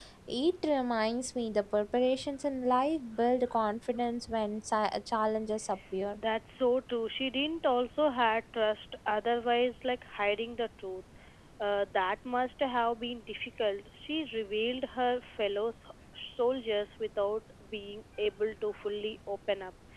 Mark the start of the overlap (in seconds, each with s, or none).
none